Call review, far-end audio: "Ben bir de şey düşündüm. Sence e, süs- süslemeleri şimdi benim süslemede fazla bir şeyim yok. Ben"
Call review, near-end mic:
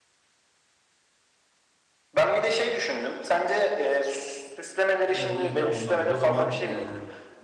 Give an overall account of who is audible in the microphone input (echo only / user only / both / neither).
both